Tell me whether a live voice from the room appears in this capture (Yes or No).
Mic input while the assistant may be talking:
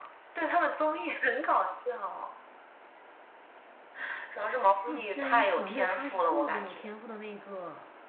Yes